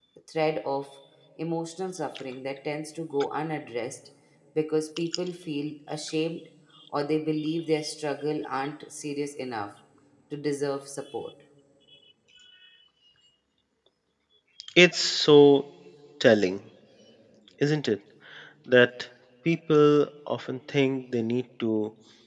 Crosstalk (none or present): none